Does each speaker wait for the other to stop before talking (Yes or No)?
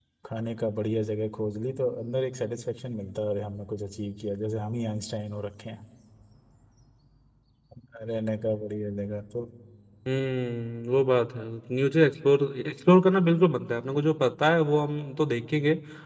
Yes